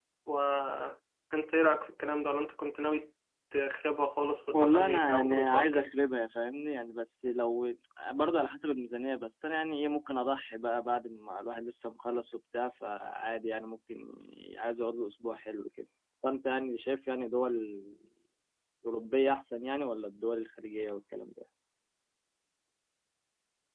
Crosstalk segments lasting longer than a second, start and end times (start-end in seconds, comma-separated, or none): 4.5-5.9